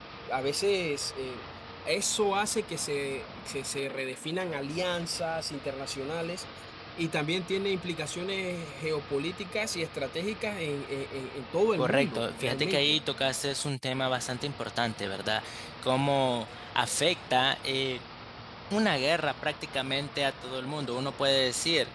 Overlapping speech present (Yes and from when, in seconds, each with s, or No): Yes, from 11.8 s